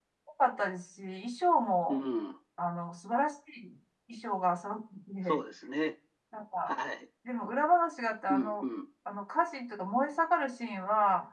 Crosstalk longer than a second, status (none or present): none